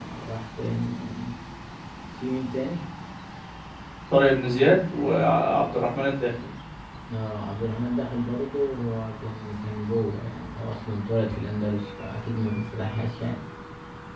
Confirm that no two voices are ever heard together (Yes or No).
Yes